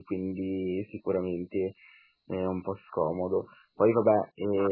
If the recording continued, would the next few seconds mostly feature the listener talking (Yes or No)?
No